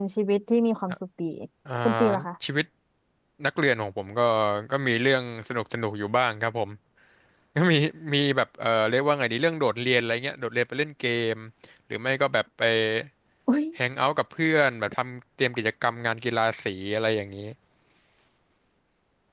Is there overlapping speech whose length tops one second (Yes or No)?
No